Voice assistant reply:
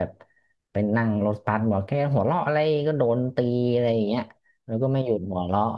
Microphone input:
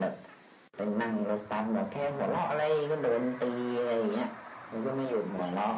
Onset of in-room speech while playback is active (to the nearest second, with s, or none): none